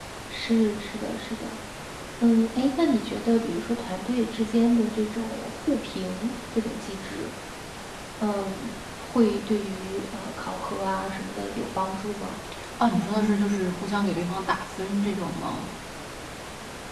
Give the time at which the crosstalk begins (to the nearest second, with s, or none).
none